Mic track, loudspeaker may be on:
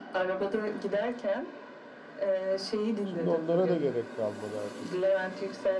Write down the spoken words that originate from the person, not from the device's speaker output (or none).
Şimdi onlara da gerek kalmadı artık.